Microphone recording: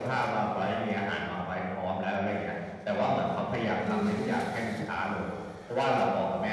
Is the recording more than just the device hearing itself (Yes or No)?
Yes